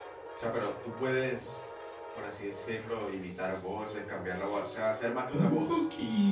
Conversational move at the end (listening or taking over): taking over